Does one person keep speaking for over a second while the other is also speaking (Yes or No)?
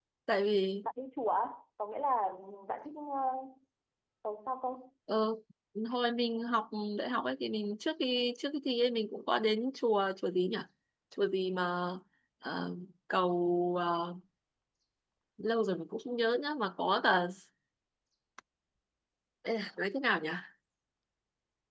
No